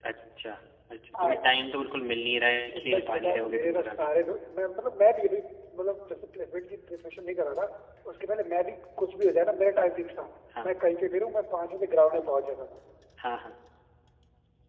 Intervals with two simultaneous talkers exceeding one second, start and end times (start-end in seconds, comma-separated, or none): 2.7-4.1